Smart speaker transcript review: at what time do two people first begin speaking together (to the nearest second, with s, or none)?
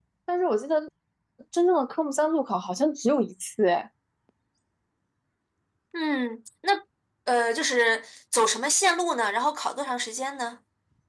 none